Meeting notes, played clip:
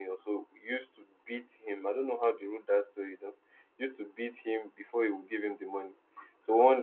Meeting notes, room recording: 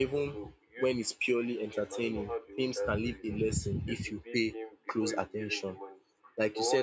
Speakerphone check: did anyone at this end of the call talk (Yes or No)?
Yes